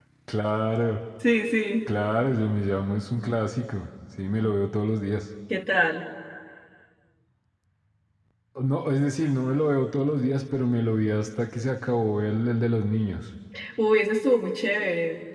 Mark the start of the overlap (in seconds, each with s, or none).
none